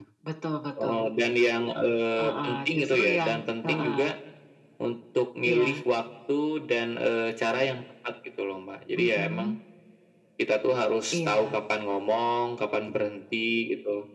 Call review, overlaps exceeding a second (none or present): present